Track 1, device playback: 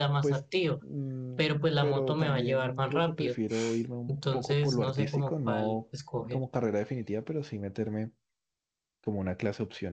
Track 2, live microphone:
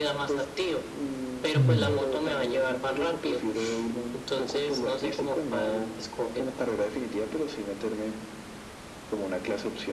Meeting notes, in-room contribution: present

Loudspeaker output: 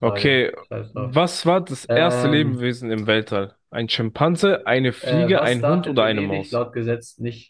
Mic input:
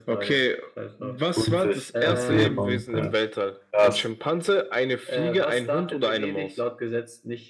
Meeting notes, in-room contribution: present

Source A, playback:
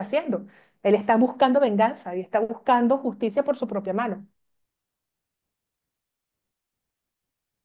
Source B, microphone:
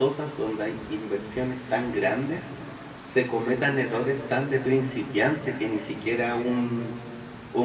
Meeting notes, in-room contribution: present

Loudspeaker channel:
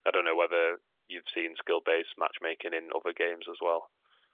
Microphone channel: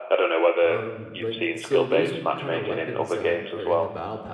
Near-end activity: present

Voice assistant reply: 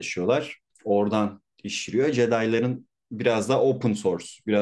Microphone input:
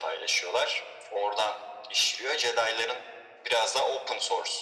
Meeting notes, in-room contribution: none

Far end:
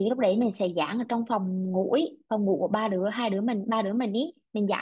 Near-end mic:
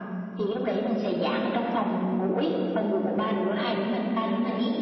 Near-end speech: none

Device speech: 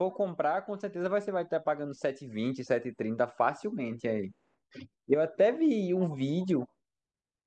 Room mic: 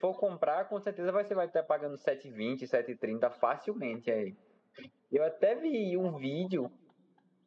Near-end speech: none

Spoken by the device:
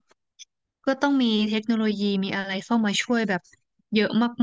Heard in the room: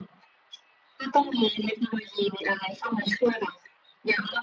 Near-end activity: none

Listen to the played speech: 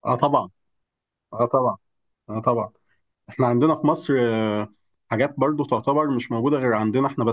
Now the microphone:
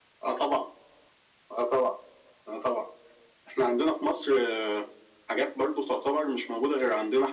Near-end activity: none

